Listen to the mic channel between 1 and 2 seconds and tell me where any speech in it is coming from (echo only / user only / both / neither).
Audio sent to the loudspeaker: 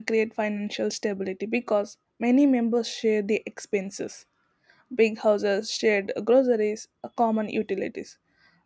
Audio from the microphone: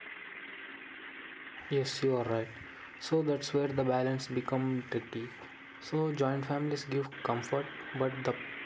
user only